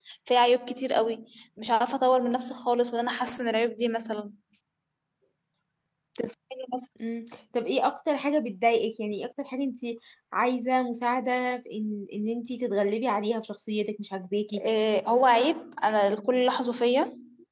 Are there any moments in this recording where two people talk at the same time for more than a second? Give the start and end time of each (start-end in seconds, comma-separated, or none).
none